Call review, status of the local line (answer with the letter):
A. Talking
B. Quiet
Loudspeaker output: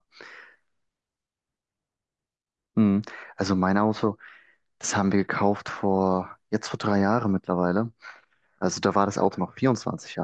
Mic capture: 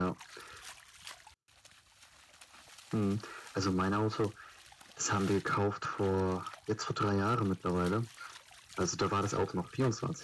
B